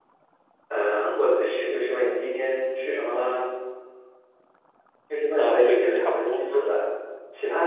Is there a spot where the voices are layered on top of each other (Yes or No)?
Yes